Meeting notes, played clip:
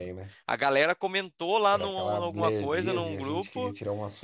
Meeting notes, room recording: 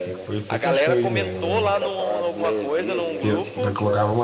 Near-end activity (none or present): present